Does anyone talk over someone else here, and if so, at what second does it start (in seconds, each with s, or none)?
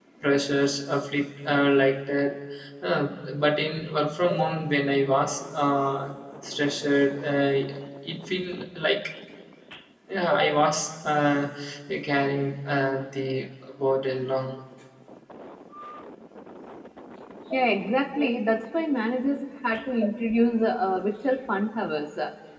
none